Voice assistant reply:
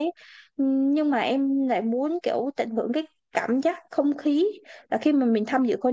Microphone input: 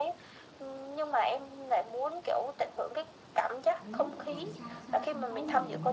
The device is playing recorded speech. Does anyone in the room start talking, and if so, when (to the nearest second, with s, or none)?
4 s